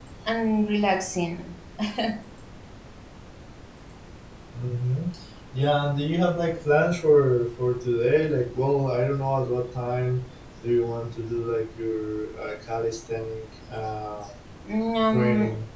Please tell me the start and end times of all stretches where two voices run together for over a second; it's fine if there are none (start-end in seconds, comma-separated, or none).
none